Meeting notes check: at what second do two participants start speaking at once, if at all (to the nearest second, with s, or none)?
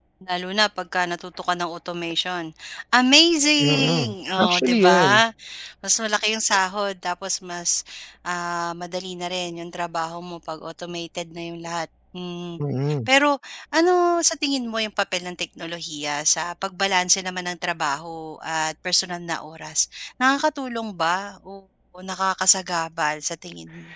4 s